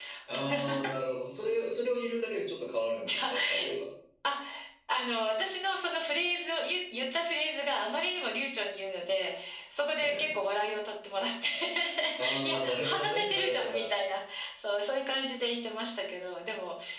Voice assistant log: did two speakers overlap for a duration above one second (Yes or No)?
Yes